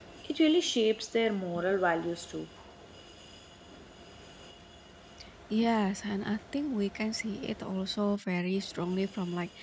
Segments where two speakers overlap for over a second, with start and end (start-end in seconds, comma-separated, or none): none